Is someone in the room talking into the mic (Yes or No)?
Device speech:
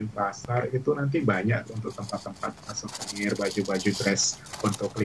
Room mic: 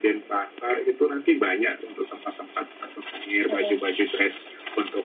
Yes